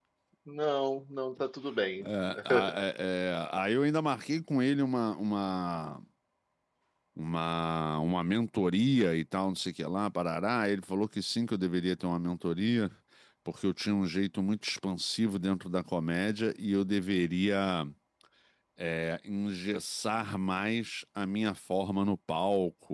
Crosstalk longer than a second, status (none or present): none